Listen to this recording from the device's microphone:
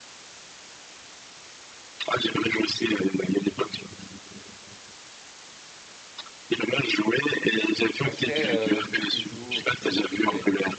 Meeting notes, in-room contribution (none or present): present